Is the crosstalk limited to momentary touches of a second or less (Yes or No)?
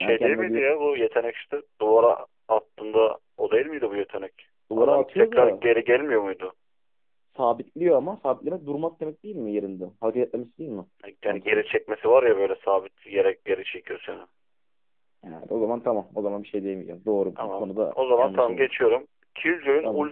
No